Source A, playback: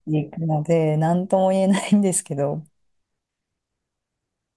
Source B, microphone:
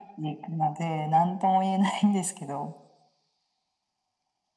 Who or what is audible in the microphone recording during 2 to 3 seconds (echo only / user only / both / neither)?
echo only